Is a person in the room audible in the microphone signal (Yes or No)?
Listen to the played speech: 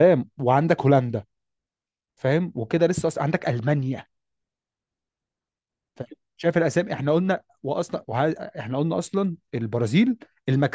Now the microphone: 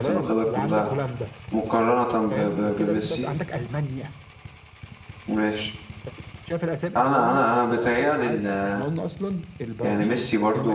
Yes